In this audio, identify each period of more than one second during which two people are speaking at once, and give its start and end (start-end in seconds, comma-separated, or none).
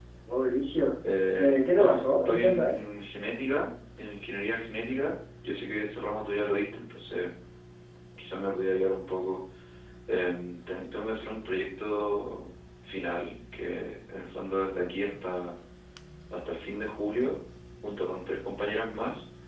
1.4-2.8